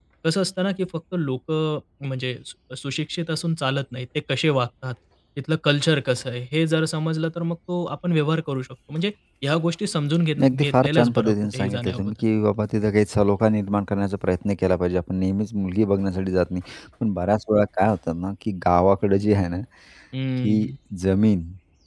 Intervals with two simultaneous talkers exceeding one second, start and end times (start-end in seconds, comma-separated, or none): 10.4-12.2